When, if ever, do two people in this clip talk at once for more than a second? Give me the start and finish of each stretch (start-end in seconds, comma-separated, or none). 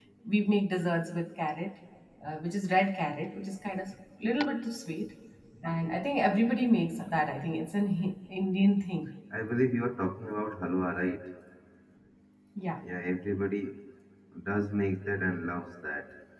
none